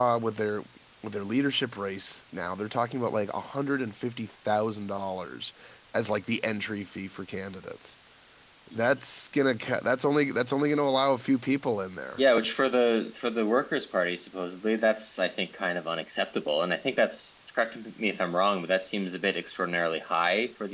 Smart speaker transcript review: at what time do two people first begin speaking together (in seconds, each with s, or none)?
none